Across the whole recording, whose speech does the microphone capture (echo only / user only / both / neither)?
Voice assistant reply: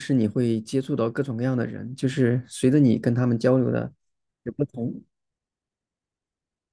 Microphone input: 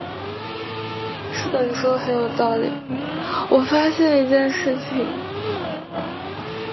user only